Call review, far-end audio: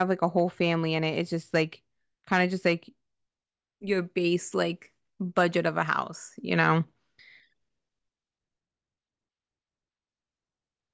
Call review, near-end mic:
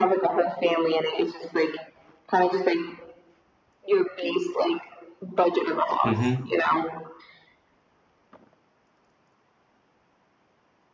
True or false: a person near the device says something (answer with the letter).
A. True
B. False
A